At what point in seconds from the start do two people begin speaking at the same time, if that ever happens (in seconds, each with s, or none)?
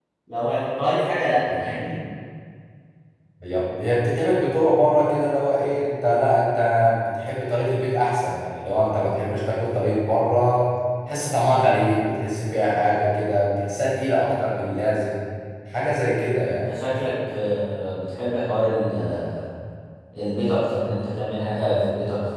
none